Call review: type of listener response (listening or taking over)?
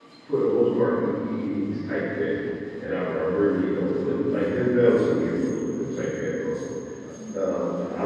listening